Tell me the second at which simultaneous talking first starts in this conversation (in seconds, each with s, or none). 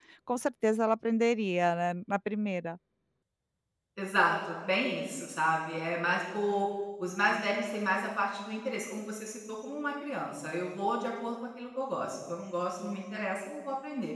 none